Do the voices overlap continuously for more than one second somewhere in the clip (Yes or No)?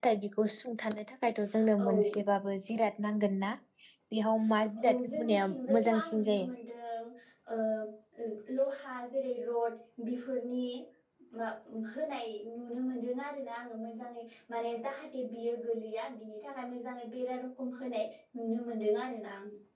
Yes